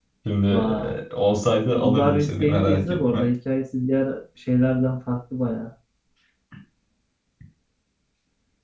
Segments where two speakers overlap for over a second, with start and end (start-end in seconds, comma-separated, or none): 1.7-3.2